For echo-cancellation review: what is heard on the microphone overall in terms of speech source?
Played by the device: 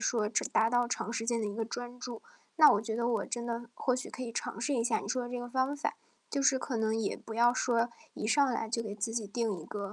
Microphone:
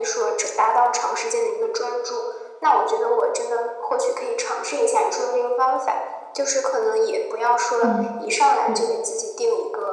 both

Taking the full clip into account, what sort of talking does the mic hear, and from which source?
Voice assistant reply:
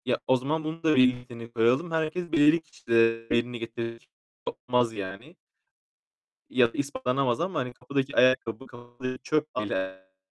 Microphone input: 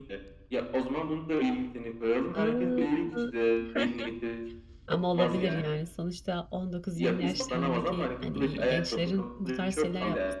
both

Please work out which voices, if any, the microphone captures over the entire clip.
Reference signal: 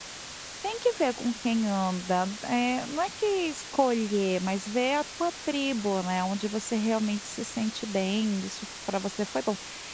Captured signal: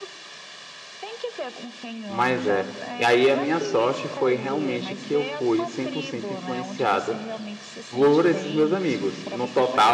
both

